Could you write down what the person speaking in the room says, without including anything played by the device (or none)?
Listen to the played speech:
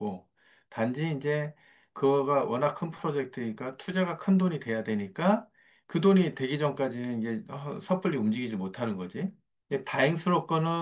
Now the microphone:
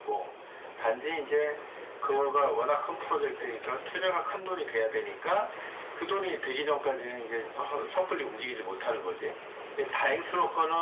none